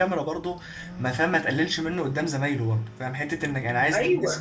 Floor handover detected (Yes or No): No